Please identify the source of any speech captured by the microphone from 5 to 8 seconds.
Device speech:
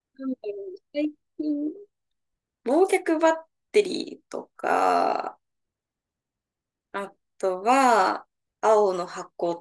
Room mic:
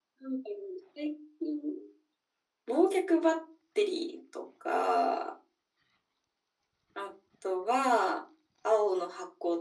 echo only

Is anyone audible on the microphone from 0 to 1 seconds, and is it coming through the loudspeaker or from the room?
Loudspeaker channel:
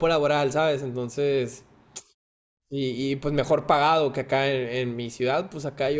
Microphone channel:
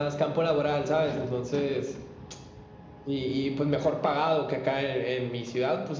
echo only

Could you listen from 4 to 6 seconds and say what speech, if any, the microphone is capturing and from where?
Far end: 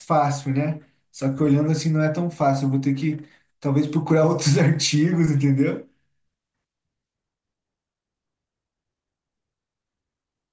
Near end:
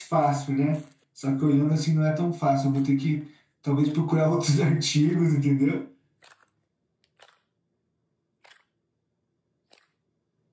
echo only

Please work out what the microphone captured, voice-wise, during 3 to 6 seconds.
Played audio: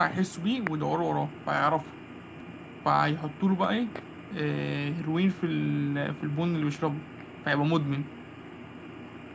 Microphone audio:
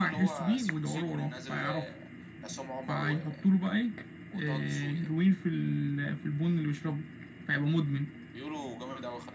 both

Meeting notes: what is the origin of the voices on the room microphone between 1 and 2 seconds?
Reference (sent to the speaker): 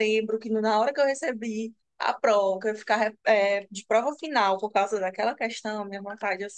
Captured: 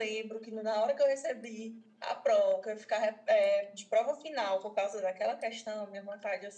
echo only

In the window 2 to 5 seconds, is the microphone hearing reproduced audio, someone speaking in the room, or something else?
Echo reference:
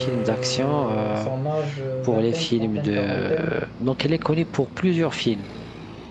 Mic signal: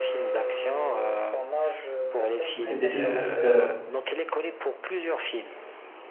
both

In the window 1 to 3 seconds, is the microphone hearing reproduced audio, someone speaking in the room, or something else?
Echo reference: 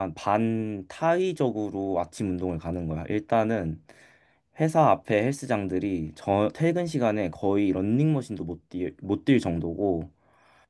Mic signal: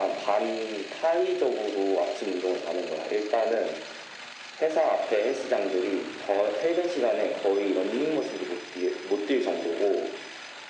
echo only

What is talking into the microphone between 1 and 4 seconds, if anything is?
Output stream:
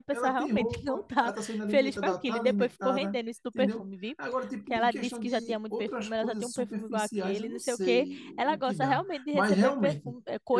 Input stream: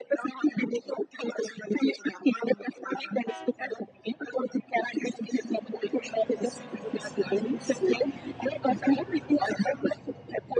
echo only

